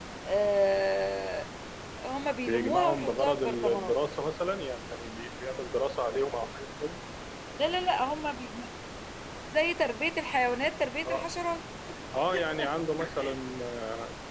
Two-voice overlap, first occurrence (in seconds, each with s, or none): 2.4 s